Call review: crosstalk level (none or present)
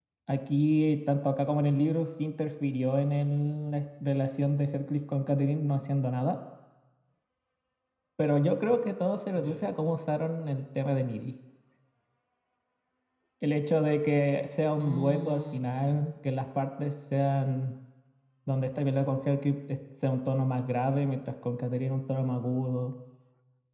present